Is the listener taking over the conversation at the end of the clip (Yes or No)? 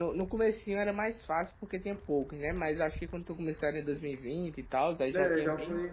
Yes